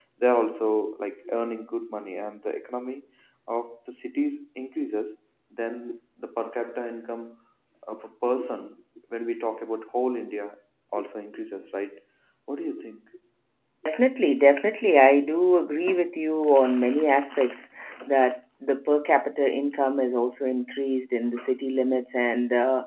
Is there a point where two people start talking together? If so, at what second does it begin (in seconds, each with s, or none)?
none